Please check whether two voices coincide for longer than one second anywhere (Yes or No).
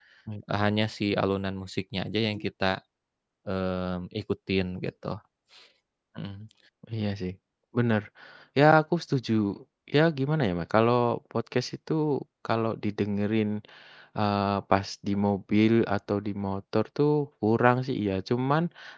No